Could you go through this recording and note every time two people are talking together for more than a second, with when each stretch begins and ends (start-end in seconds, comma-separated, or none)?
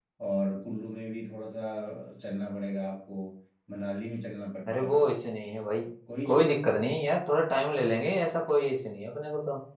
none